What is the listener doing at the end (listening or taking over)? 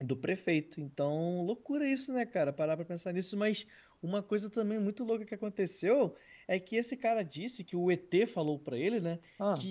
listening